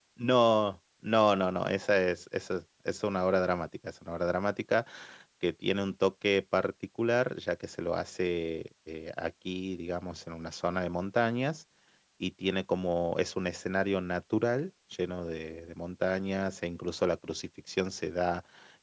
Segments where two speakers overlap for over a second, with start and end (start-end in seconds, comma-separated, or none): none